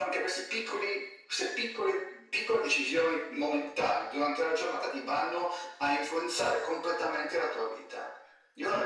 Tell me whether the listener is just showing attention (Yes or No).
No